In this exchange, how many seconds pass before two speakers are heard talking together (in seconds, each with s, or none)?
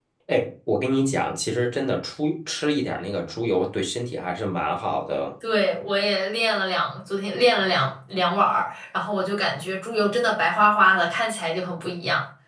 none